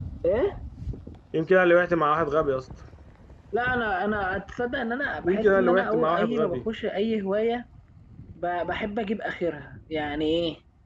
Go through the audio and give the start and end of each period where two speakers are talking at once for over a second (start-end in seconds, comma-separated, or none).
5.2-6.6